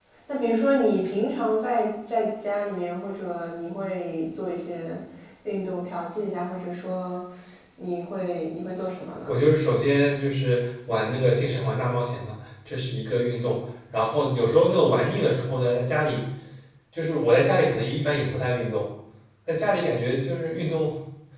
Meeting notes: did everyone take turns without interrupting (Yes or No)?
Yes